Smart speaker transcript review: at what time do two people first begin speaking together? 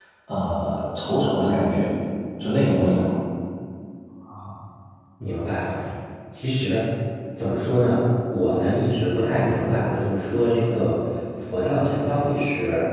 none

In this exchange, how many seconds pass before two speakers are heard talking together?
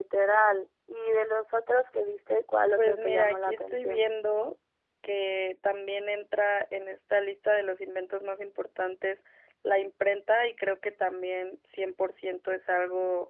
2.8 s

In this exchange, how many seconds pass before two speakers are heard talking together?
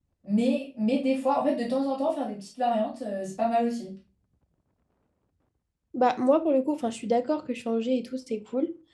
none

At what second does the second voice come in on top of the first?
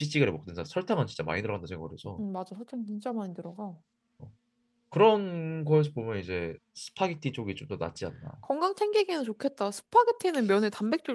none

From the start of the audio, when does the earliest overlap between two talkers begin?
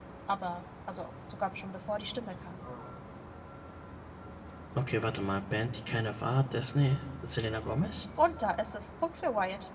none

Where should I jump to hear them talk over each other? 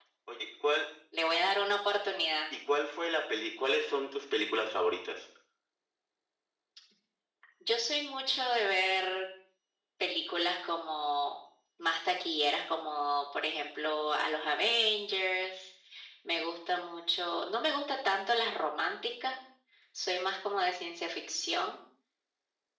none

